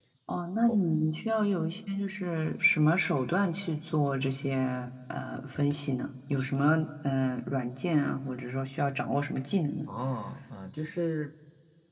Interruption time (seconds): none

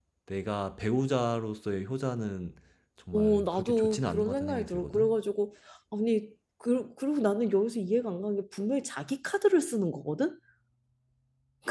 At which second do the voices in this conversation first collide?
3.1 s

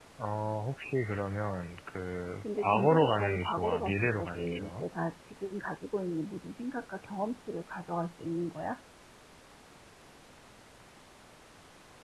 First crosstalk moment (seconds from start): 2.4 s

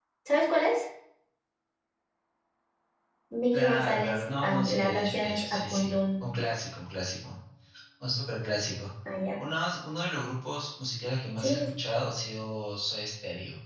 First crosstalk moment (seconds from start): 3.5 s

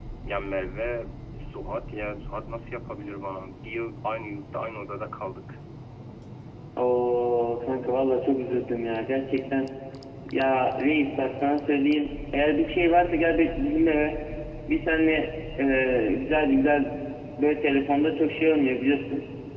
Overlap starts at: none

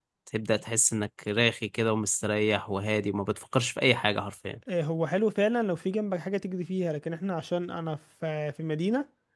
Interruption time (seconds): none

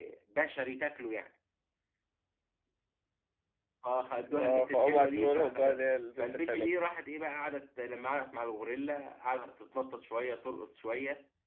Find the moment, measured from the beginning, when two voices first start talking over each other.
4.4 s

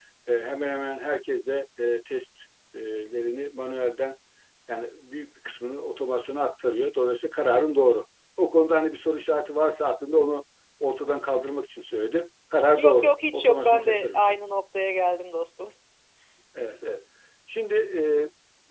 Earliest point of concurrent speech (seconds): 12.8 s

